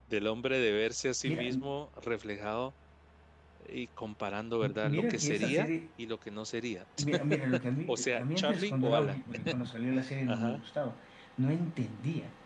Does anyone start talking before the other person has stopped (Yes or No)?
Yes